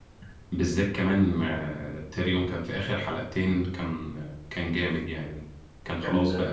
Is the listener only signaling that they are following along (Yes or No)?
Yes